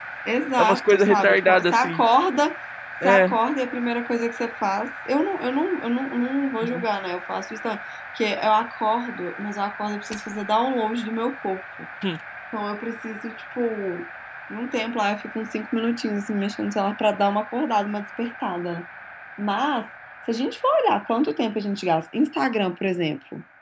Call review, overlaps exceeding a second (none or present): present